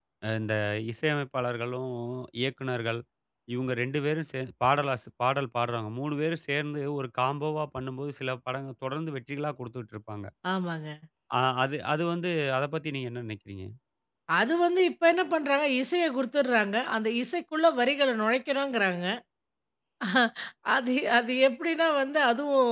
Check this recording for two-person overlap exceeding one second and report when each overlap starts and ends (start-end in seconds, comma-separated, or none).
none